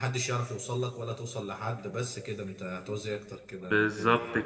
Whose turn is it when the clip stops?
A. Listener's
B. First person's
A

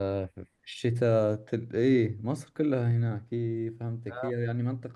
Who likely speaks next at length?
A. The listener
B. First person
B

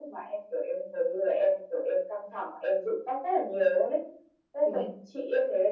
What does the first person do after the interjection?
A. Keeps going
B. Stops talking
A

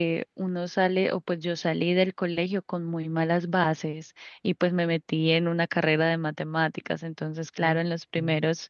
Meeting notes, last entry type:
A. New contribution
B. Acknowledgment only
B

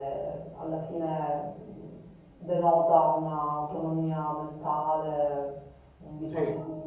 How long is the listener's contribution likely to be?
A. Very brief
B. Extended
A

